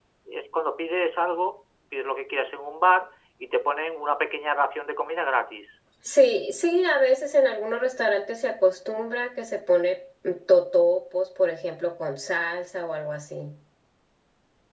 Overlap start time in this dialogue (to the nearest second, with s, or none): none